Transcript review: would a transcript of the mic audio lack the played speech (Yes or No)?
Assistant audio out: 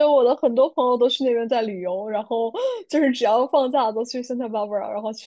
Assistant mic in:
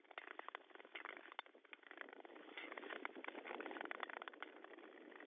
Yes